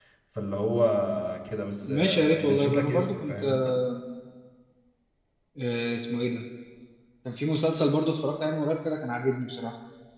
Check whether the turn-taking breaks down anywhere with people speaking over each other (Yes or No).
Yes